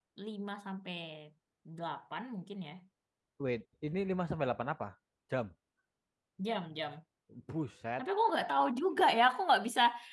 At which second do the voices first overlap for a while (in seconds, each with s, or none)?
none